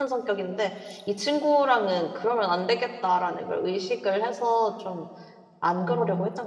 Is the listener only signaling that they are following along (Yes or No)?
No